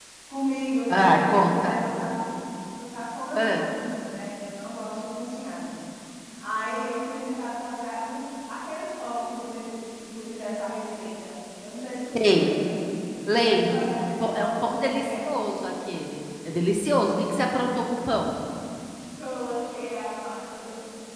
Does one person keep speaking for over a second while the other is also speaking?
Yes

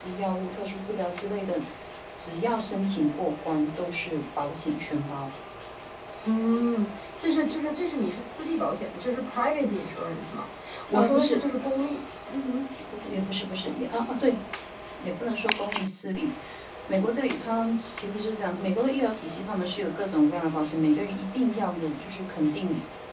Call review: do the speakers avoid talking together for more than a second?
Yes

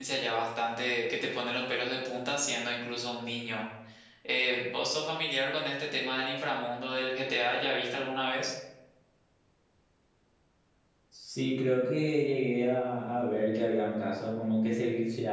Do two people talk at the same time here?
No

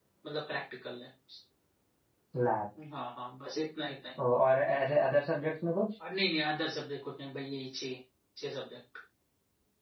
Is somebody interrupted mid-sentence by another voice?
No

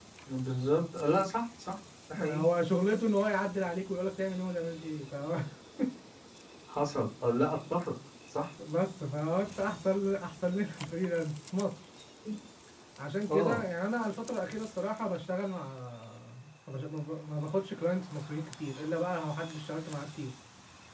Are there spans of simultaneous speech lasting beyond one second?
No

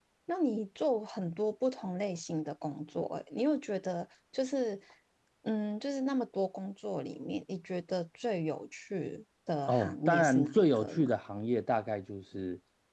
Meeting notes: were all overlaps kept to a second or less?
No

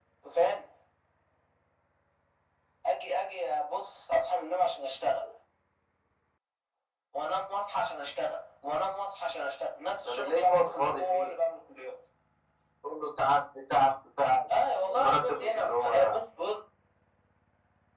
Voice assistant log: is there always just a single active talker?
No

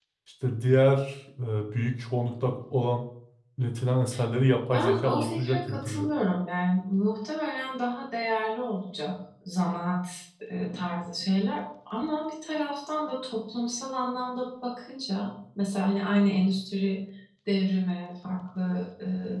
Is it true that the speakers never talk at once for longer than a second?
No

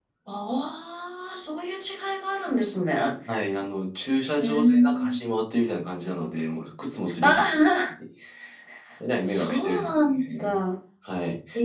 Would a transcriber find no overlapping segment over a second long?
No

